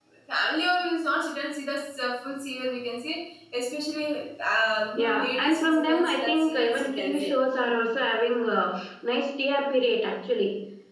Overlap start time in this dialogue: 5 s

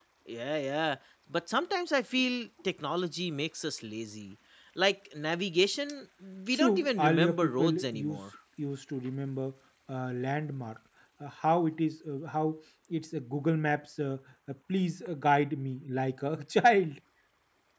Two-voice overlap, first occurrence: 7 s

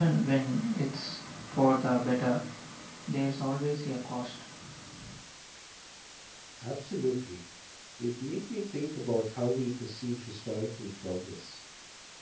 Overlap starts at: none

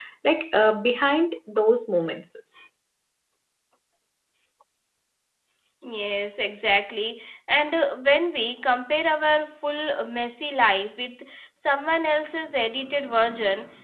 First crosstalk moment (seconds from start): none

